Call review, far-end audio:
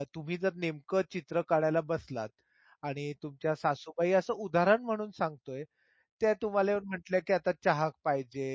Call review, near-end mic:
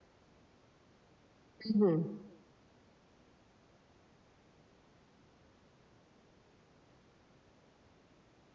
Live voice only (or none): हं, हं.